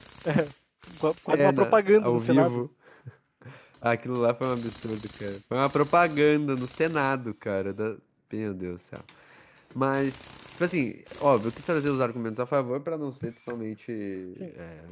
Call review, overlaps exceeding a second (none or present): present